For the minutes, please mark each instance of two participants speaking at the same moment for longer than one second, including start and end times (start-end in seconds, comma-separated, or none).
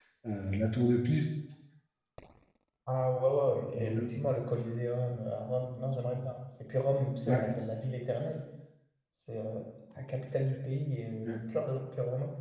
none